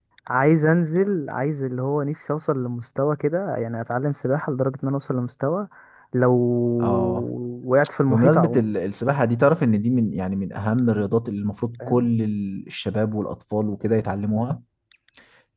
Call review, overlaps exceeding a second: none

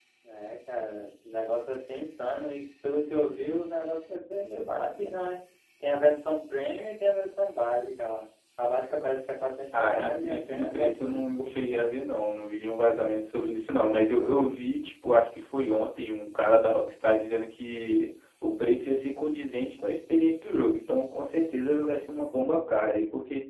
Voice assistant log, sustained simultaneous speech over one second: present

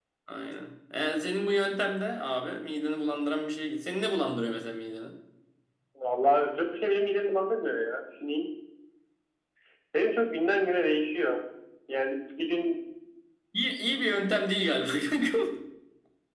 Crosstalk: none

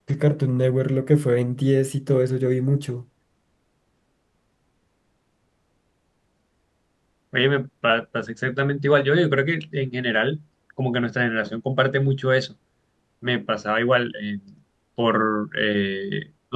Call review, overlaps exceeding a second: none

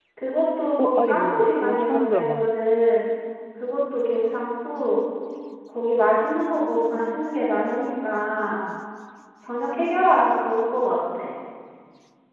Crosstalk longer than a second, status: present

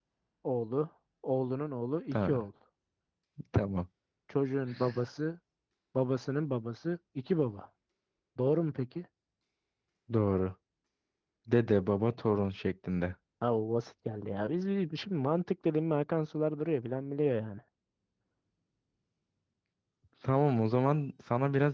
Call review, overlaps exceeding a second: none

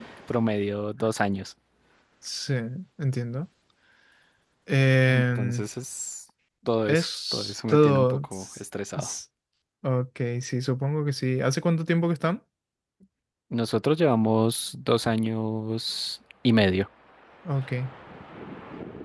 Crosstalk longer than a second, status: present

